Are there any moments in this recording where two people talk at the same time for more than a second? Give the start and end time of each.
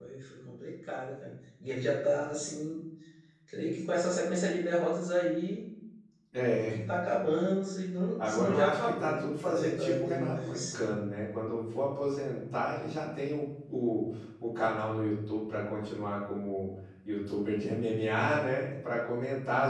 8.2-10.9

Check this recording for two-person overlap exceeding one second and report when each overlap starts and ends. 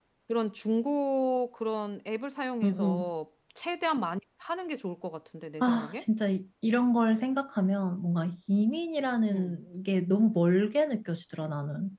none

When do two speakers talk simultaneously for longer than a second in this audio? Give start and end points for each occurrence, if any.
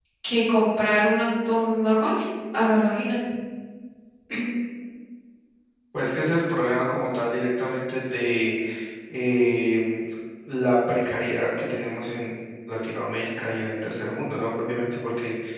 none

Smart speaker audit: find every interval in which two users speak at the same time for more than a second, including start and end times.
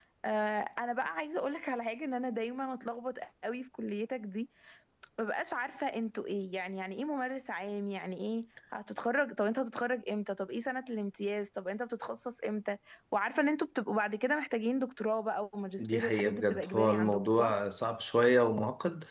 15.8-17.6

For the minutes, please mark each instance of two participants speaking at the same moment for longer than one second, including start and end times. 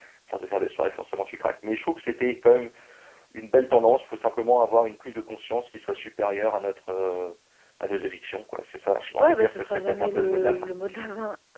9.2-10.7

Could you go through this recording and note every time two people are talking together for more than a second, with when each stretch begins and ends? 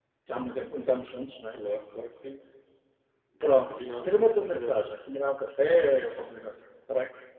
3.7-4.9

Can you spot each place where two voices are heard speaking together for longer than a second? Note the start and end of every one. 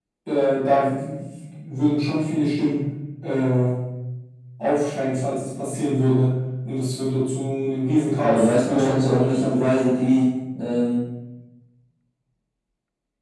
8.2-9.7

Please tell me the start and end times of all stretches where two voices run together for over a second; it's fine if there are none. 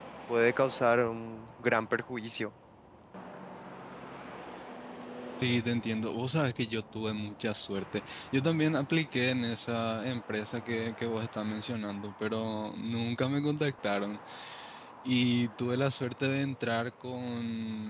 none

